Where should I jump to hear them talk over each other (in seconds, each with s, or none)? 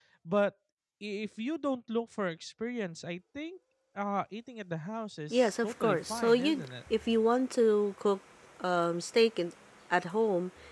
5.3 s